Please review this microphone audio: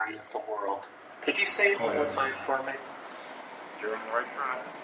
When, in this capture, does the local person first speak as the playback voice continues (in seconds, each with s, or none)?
1.8 s